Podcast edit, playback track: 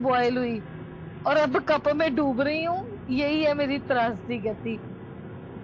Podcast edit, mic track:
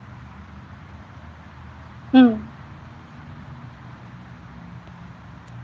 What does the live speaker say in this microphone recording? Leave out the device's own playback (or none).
हम्म,